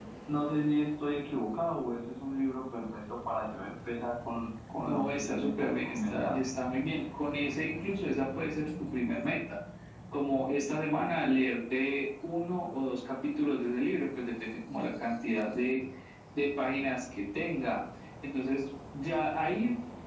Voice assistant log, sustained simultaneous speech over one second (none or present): present